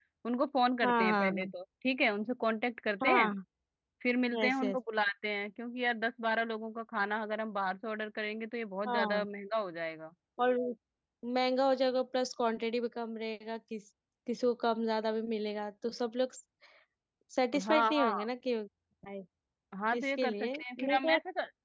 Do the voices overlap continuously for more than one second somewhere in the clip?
Yes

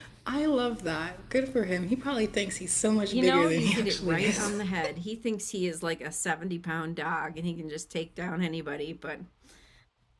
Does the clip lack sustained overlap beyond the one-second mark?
No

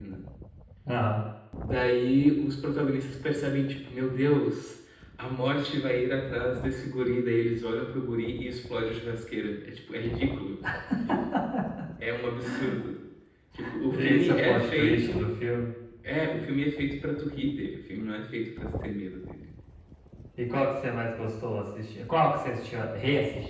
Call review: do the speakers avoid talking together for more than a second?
No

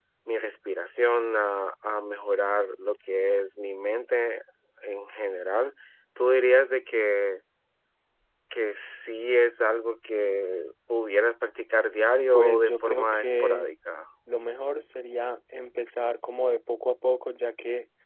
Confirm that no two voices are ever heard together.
No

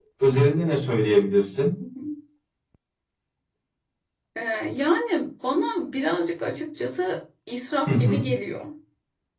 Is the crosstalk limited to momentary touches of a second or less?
Yes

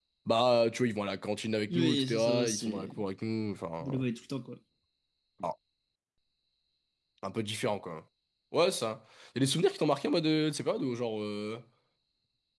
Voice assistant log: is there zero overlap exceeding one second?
No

